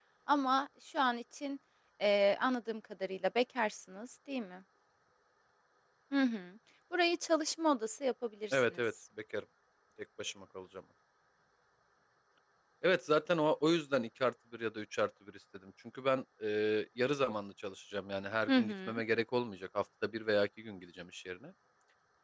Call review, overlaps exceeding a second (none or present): none